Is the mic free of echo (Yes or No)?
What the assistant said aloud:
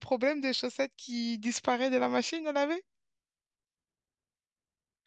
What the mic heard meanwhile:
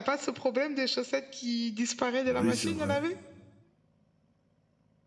No